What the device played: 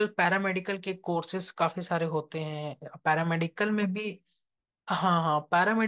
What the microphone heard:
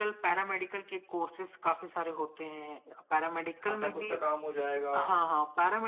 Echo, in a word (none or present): present